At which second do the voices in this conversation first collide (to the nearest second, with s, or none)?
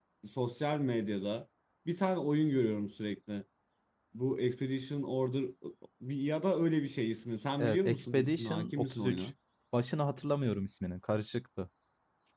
8 s